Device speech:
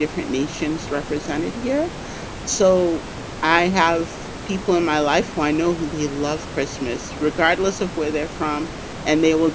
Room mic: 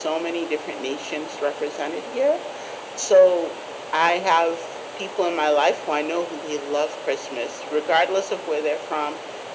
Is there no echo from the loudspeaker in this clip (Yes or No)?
No